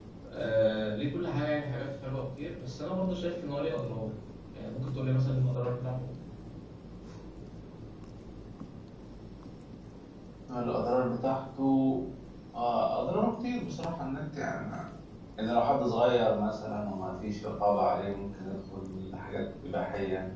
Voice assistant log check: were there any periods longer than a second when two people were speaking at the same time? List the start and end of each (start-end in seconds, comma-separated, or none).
none